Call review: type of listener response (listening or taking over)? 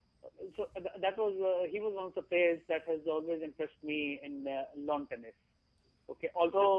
listening